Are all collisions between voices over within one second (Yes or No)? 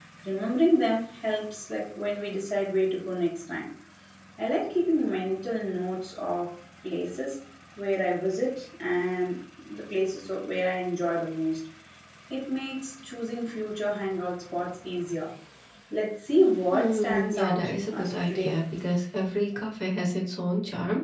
No